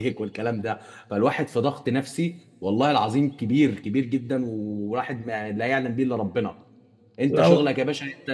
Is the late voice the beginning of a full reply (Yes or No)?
No